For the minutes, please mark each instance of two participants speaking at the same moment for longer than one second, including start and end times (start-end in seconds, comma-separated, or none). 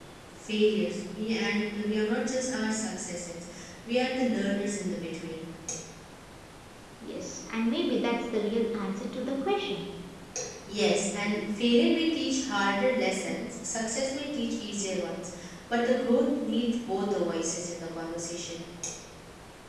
none